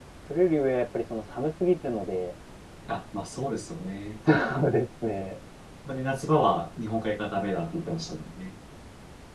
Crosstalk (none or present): none